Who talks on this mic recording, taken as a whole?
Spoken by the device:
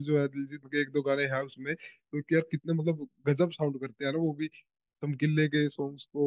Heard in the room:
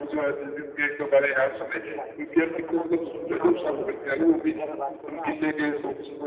both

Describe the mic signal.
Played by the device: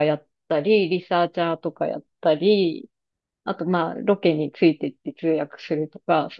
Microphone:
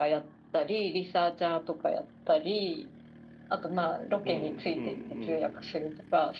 both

